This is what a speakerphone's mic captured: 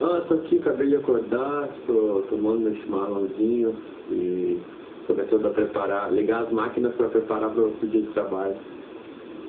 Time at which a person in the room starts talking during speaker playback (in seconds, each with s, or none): none